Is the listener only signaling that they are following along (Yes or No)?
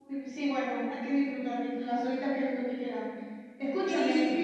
Yes